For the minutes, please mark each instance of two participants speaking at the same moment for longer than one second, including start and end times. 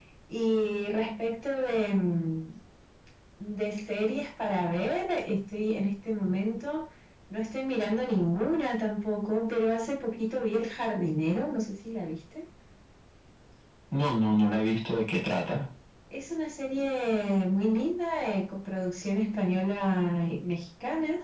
none

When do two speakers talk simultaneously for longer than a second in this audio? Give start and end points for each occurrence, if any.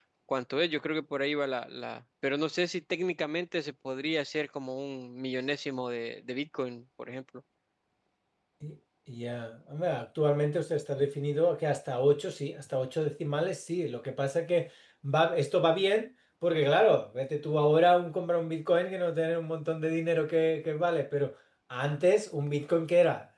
none

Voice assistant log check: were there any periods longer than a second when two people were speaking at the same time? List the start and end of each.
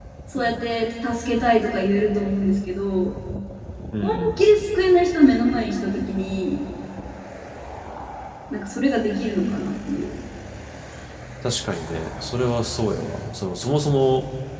none

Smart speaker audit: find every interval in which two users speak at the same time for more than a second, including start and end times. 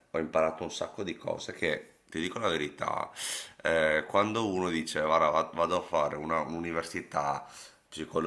none

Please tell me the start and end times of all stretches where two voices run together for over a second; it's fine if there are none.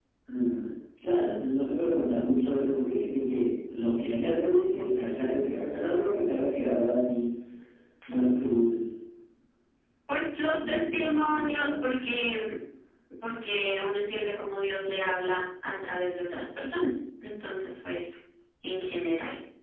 10.7-11.9

